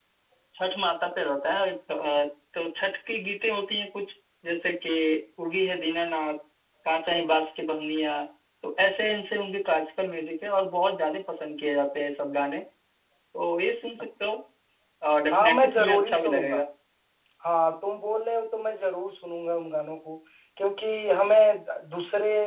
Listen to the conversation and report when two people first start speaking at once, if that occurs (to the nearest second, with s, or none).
15 s